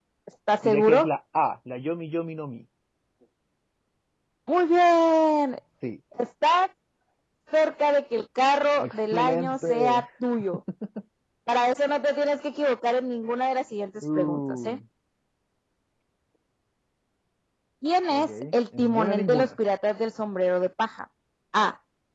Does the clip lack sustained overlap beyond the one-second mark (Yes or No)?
No